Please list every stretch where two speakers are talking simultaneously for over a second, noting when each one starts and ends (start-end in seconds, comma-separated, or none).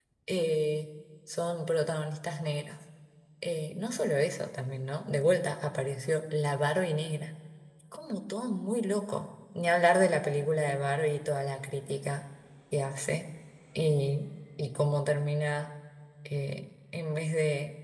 none